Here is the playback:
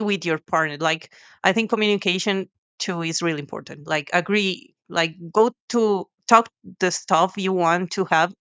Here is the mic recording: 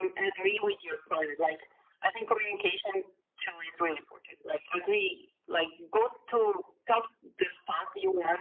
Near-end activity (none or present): none